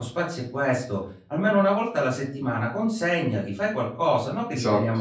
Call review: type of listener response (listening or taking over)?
listening